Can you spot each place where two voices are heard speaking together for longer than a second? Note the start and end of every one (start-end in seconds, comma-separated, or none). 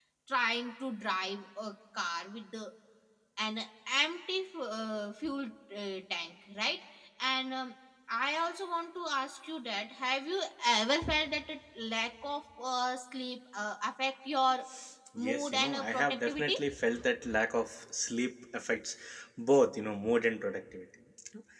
15.3-16.6